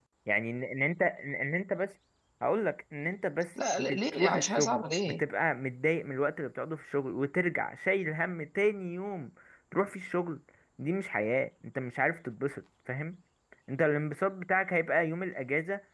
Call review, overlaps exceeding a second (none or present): present